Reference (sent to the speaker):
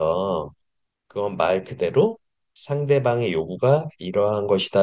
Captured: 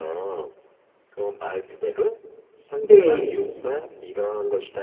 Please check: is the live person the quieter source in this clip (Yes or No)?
No